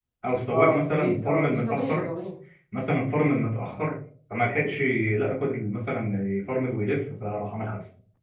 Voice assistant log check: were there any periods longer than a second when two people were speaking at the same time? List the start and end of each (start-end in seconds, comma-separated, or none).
0.5-2.0